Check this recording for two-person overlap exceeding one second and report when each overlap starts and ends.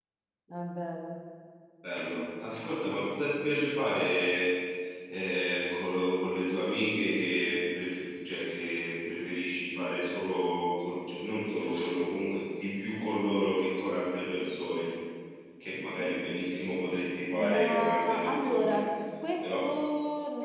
17.3-18.8

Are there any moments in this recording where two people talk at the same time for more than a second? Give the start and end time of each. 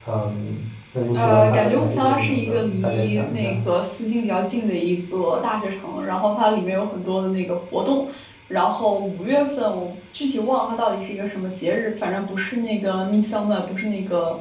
1.1-3.5

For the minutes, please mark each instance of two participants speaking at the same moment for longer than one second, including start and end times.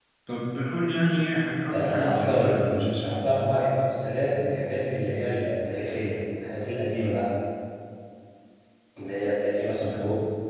1.7-3.2

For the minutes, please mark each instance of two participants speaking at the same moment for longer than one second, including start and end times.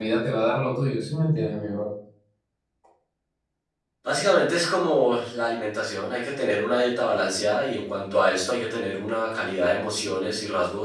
none

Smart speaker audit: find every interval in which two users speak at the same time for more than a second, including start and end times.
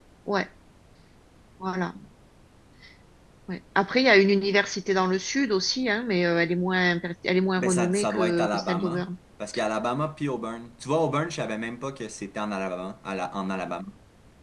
7.6-9.1

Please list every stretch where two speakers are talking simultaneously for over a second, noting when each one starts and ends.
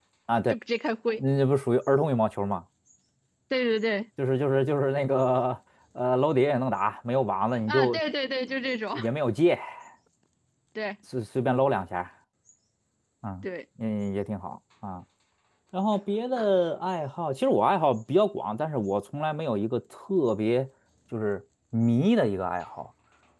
none

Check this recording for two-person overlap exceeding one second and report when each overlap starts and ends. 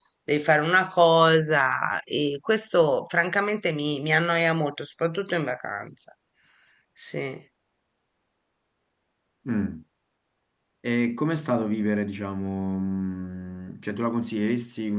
none

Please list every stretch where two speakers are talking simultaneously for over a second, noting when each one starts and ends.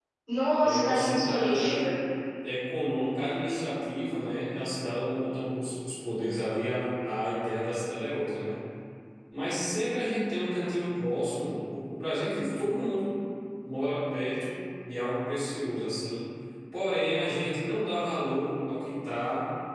0.6-1.9

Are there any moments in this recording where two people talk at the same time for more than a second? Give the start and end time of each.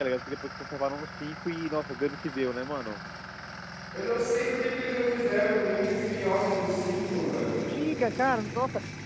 none

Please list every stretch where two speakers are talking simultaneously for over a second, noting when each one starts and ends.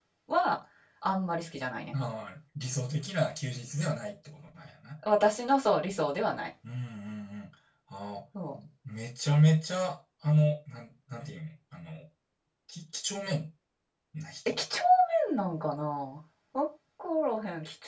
none

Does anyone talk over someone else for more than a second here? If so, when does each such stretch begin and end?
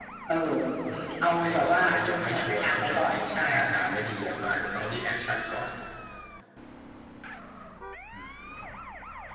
1.2-3.4

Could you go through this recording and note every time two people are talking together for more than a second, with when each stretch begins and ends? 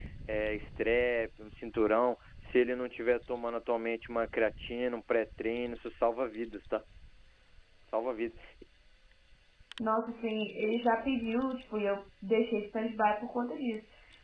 none

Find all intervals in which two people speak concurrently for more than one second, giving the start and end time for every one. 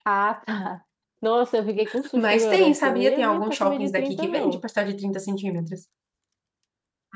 2.2-4.6

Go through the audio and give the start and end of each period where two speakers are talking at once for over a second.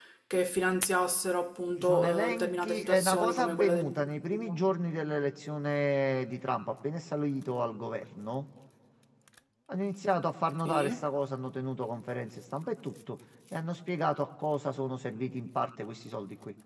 1.8-4.5

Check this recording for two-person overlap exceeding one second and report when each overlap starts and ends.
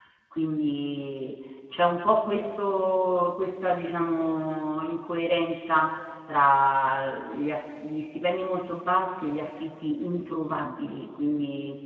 none

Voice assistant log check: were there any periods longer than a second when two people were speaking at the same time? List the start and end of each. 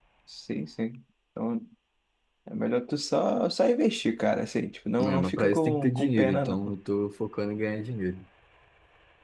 5.0-6.7

